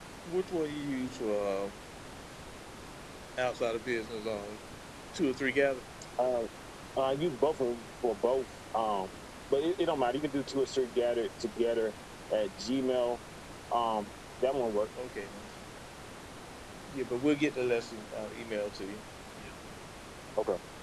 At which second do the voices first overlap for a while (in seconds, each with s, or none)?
none